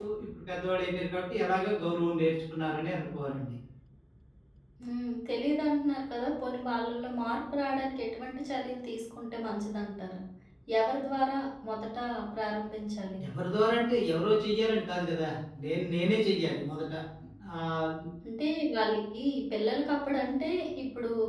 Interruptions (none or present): none